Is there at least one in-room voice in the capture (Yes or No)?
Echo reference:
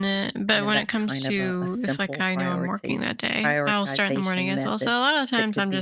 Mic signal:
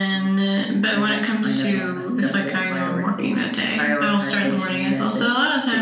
No